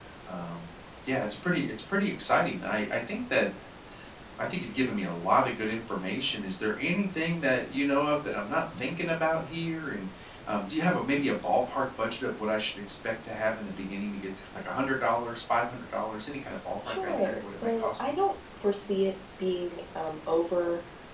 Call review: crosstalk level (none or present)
present